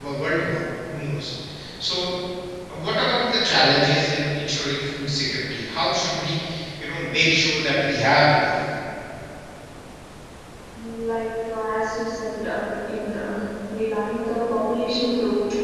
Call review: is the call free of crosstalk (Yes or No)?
Yes